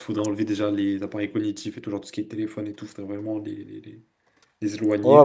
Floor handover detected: Yes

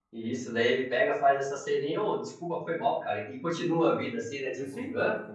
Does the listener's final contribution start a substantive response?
Yes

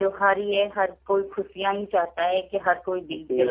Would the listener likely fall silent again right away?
No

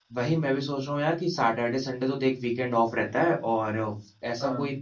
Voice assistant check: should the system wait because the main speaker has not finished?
Yes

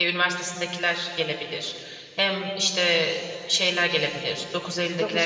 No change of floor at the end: Yes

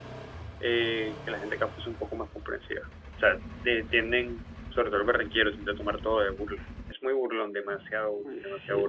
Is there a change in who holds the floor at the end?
Yes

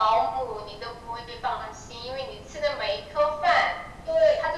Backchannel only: Yes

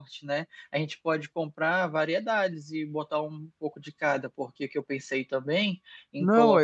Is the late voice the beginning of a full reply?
Yes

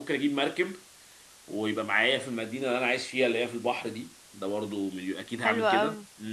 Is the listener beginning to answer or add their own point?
Yes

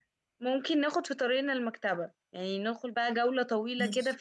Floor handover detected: No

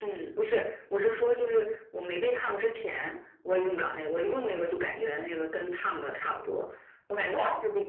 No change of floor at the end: Yes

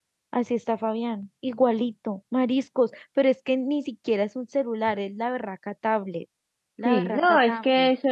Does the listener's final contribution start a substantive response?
Yes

